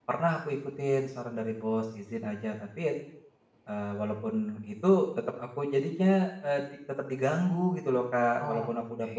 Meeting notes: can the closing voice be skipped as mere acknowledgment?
Yes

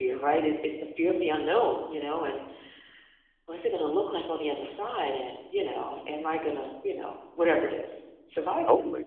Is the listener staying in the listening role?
No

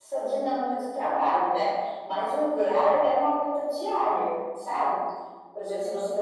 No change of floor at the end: Yes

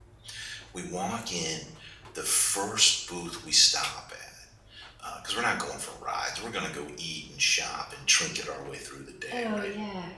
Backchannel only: No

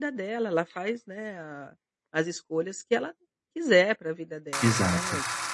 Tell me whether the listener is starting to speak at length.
No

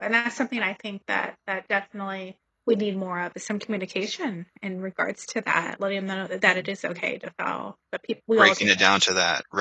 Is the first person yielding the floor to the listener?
Yes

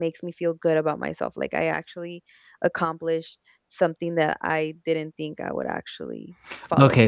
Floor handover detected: Yes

